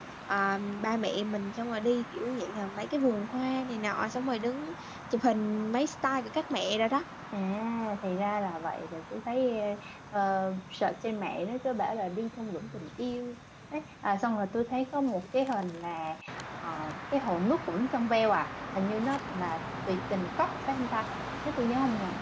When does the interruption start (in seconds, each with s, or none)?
none